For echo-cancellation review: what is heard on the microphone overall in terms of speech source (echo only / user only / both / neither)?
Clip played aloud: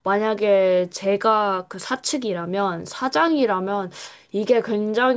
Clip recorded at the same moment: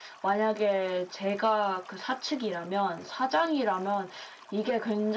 echo only